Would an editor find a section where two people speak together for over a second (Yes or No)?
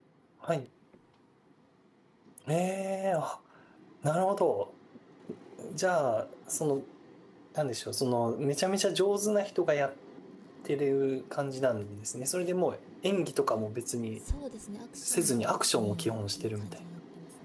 Yes